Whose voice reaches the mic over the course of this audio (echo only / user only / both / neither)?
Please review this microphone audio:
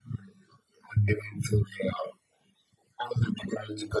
echo only